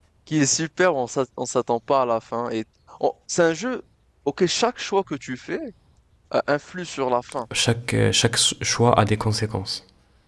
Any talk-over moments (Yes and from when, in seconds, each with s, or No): No